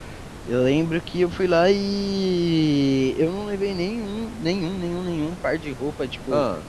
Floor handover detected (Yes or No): No